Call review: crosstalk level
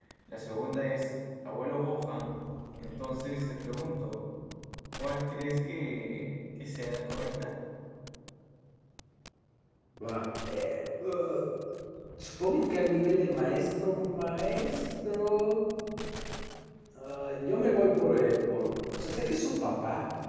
none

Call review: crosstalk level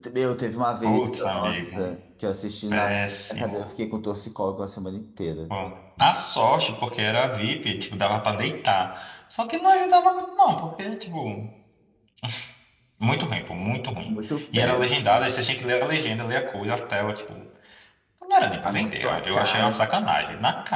present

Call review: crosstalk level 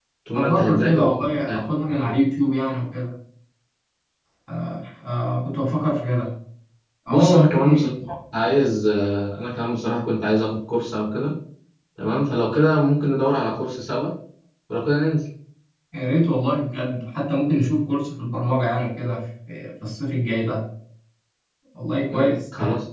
present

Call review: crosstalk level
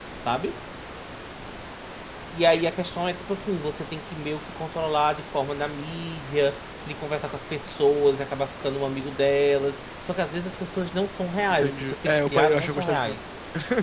present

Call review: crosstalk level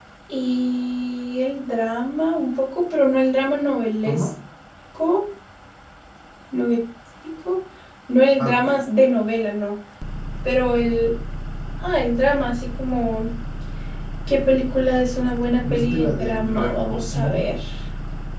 present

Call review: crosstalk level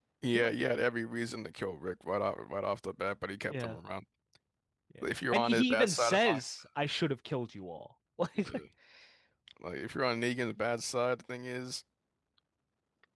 present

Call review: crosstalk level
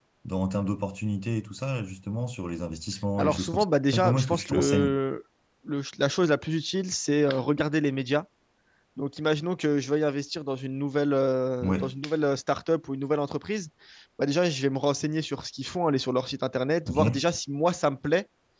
present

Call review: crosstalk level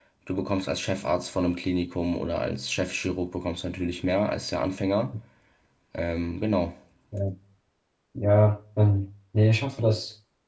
none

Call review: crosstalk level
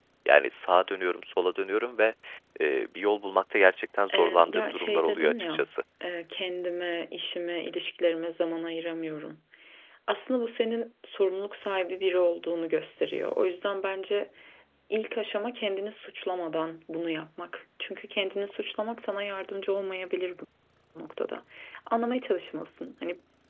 present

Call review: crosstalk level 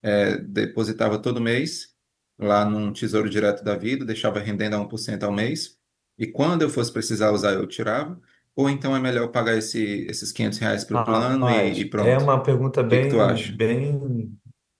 present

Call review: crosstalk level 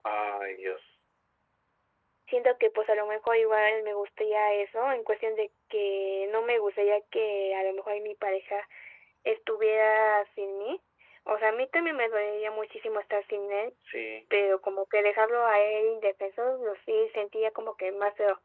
none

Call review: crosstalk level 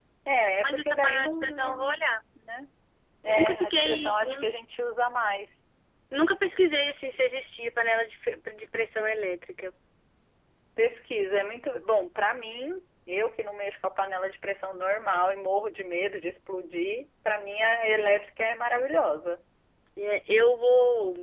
present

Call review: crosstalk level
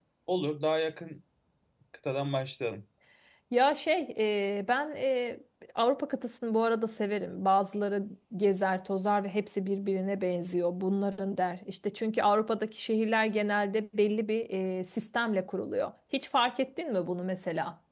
none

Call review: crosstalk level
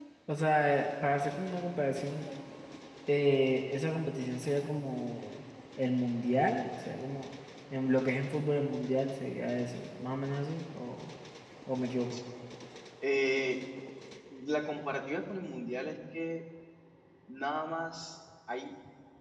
none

